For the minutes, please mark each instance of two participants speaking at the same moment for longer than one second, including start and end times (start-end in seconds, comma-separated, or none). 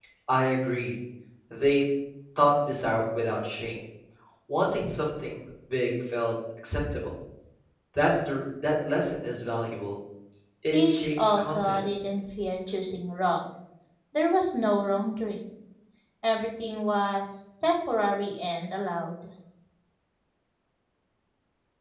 10.7-12.1